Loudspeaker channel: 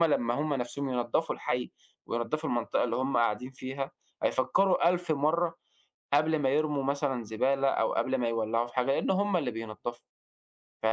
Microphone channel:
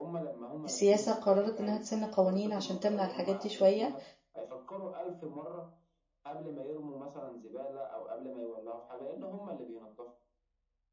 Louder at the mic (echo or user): user